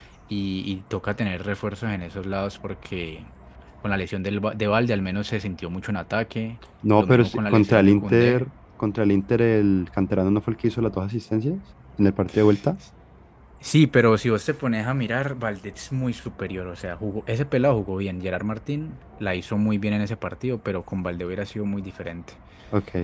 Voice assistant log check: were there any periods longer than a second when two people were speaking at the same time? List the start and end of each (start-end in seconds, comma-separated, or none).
7.0-8.4